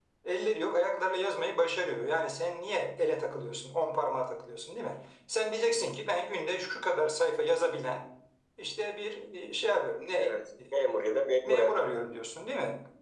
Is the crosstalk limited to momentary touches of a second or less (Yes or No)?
Yes